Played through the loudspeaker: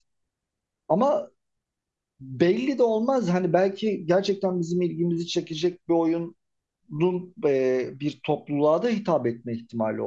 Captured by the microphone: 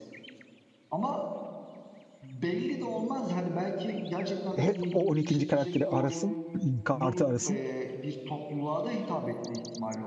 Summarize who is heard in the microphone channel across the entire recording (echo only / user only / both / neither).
both